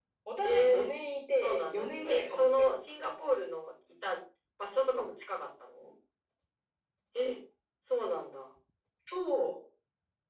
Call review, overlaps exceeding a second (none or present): present